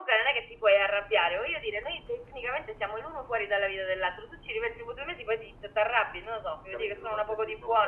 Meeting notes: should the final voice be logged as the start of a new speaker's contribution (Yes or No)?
Yes